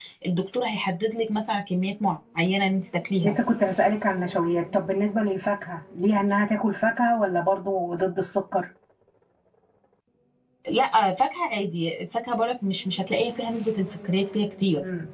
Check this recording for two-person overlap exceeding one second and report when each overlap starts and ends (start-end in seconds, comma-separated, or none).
none